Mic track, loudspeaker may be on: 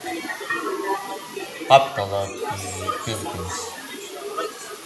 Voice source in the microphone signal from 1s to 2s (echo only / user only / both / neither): both